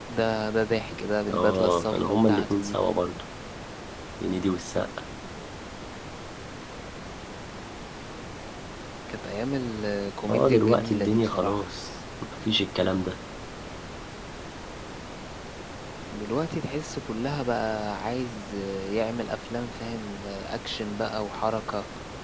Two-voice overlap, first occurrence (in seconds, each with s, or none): 1.3 s